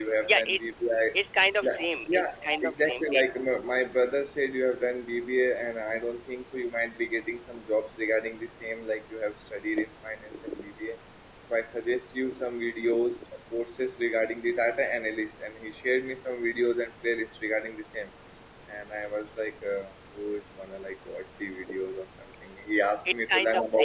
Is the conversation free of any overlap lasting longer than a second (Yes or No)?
No